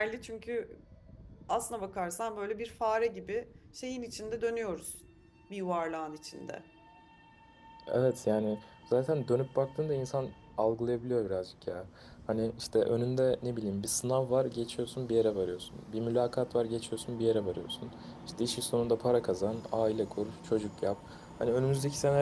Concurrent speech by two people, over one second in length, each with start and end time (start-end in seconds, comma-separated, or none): none